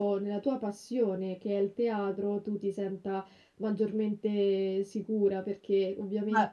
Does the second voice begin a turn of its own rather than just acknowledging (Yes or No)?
No